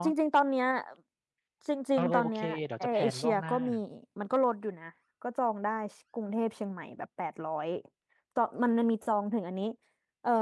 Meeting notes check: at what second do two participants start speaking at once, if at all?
2.0 s

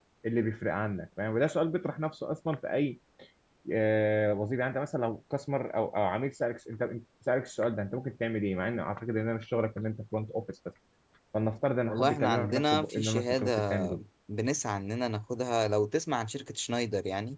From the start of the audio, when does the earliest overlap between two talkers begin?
11.9 s

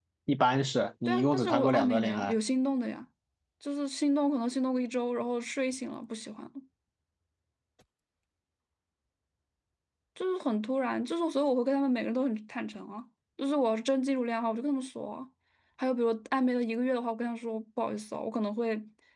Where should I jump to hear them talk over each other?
1.1 s

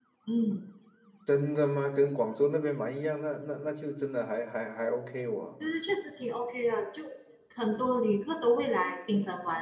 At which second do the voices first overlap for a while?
none

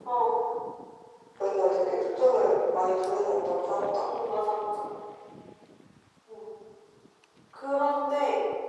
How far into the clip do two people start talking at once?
none

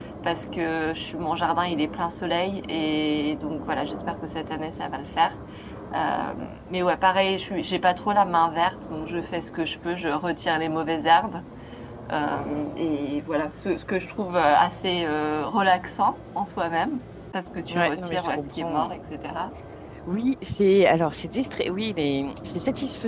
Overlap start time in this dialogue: 17.7 s

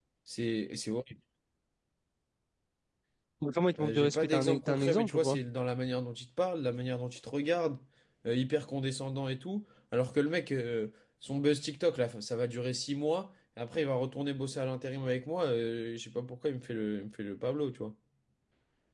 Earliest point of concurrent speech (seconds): 3.8 s

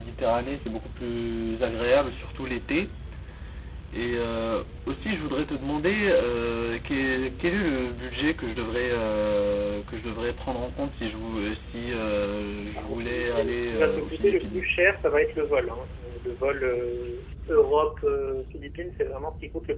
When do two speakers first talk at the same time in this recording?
12.7 s

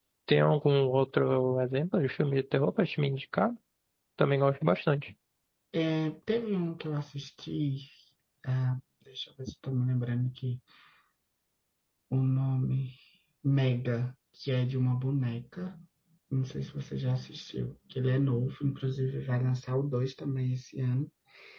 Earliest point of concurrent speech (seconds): none

